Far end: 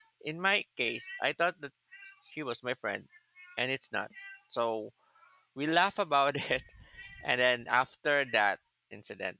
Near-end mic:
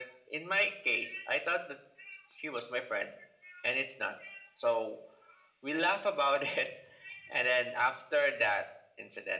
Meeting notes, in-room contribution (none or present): none